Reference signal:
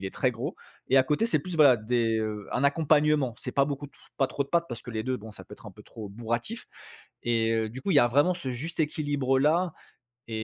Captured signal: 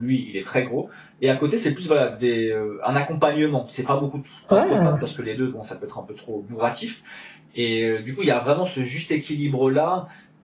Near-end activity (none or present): present